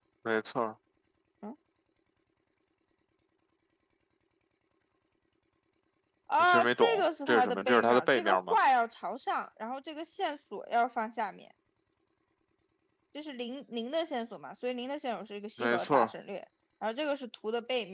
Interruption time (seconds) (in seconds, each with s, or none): 6.4 s